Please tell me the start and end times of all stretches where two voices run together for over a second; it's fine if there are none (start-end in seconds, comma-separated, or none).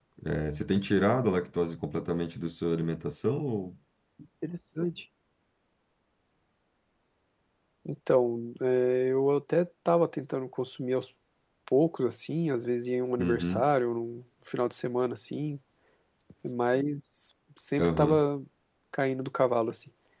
none